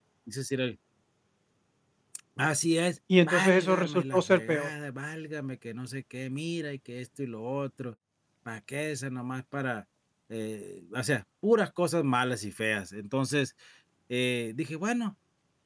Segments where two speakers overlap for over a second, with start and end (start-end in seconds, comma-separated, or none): 3.2-4.7